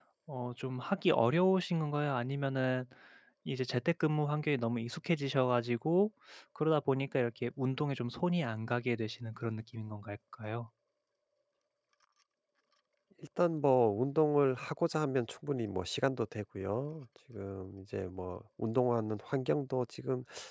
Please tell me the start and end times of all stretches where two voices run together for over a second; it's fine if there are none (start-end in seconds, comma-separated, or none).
none